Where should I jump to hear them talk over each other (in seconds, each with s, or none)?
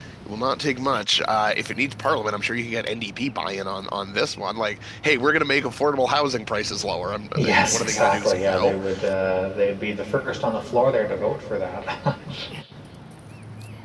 7.3 s